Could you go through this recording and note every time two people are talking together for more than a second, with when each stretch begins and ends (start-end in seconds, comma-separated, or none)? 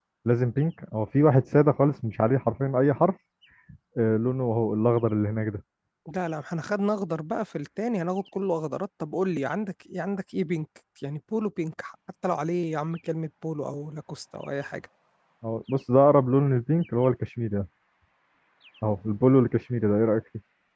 none